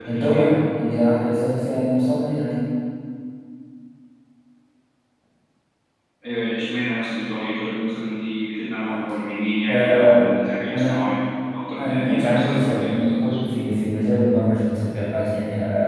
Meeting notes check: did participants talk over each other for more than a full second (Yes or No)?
Yes